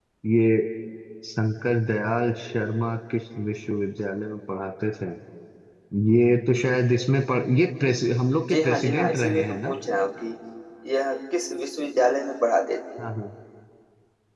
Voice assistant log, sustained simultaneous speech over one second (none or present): present